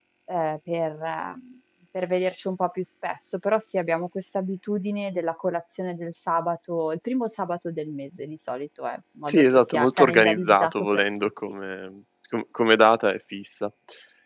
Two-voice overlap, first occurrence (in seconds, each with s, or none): 9.3 s